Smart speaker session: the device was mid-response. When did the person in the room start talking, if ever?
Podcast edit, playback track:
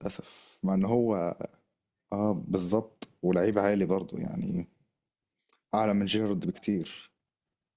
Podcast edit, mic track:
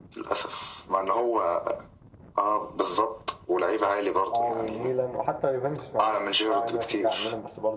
4.3 s

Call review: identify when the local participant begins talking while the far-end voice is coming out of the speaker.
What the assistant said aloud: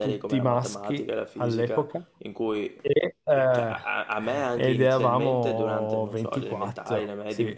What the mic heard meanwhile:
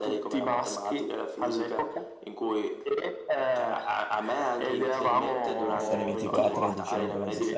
5.8 s

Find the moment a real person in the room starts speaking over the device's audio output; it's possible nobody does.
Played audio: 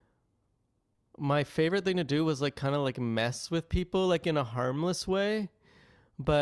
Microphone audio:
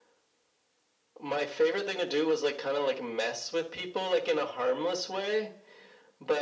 none

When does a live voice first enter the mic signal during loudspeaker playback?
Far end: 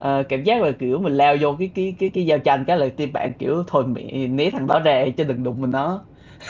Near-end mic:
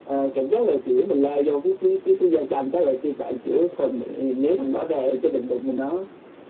none

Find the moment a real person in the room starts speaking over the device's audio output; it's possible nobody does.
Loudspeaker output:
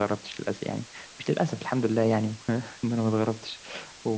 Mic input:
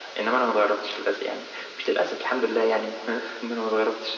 none

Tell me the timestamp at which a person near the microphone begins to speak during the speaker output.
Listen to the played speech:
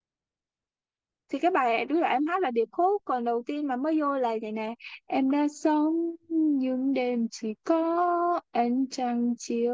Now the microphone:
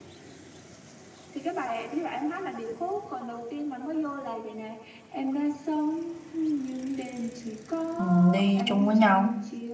8.0 s

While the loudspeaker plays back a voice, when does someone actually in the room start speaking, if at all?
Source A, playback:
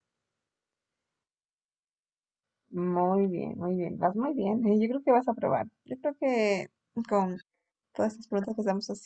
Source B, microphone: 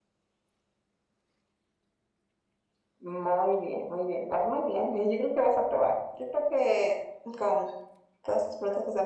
none

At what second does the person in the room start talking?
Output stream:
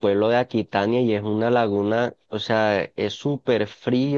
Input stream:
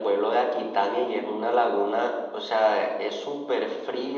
none

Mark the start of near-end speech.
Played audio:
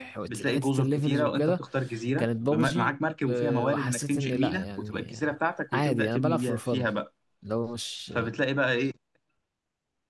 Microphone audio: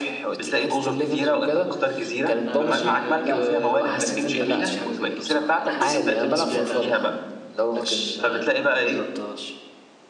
2.4 s

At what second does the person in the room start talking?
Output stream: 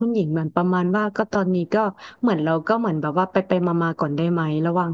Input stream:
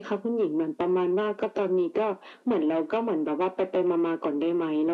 none

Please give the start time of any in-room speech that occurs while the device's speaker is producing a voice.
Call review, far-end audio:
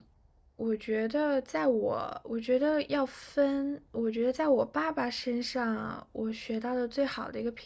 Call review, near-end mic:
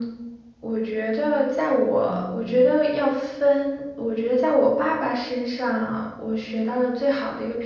2.1 s

